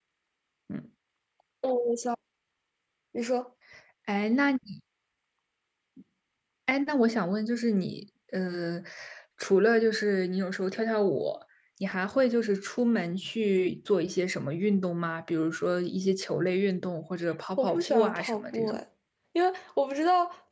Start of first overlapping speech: 17.6 s

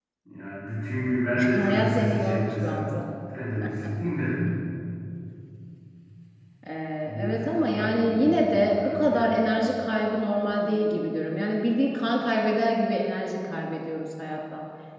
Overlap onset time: 1.5 s

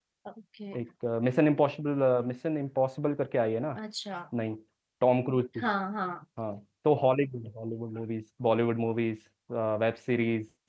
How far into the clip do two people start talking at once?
none

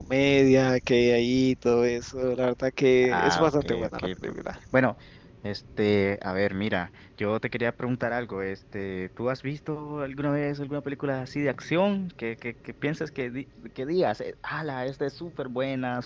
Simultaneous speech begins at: 3.0 s

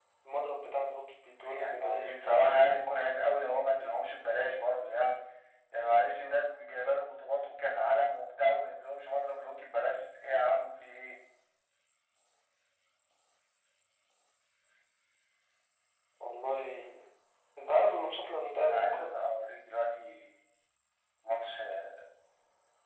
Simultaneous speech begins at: 1.4 s

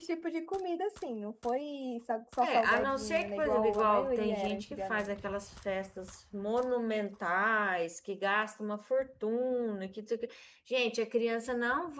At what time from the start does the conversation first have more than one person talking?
2.4 s

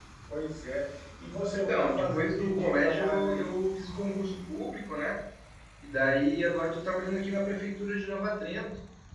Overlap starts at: 1.5 s

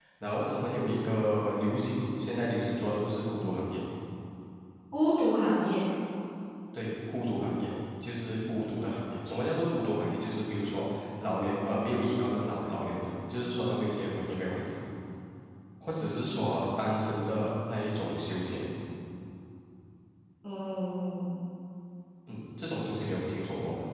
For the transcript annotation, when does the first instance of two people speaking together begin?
none

